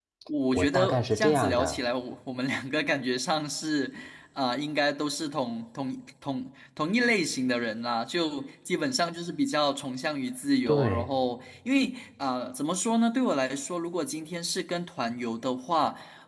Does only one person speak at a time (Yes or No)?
No